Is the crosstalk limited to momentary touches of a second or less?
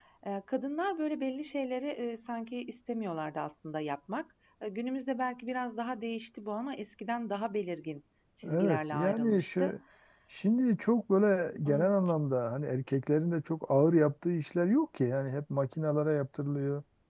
No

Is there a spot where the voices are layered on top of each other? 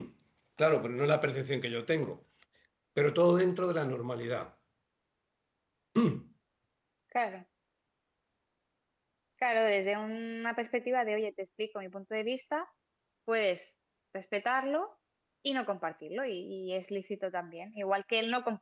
No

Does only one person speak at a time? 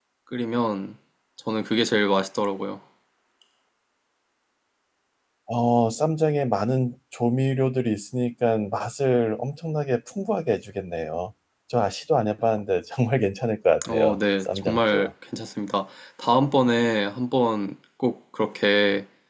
No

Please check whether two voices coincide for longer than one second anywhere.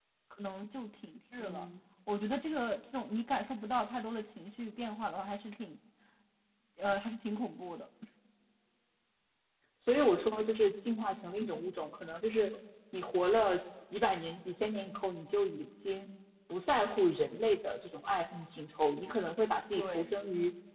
No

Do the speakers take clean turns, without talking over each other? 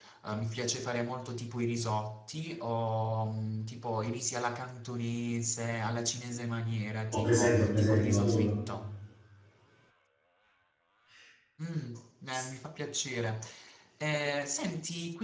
No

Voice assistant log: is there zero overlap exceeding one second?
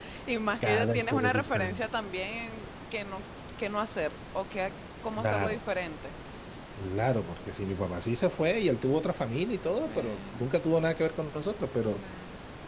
No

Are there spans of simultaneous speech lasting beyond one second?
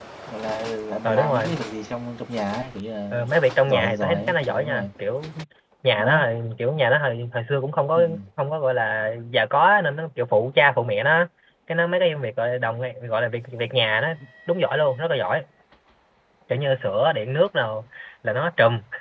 Yes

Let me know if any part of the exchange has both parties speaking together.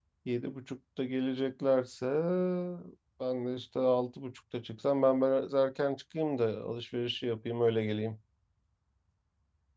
No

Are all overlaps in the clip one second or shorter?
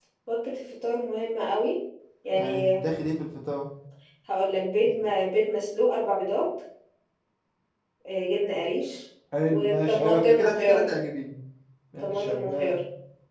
No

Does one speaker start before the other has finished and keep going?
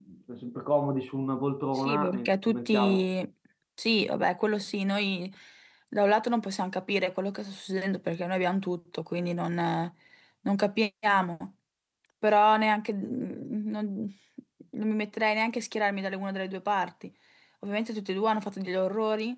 Yes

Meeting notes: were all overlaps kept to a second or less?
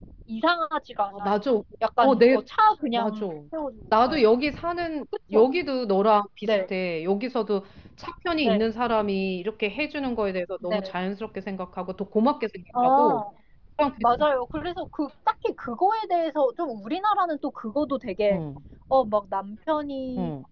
Yes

